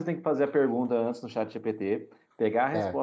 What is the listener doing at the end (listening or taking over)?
listening